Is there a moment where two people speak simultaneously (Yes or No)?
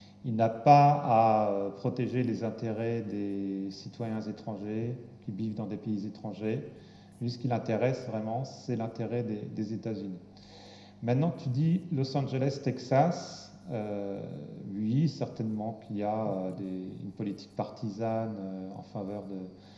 No